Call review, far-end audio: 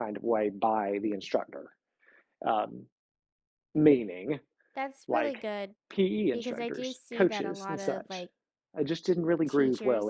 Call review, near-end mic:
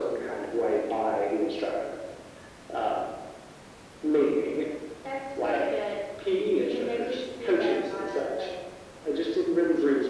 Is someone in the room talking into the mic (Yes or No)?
No